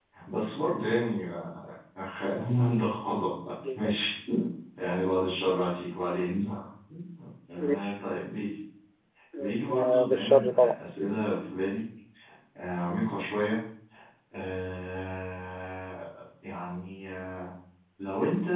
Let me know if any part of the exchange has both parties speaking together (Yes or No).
Yes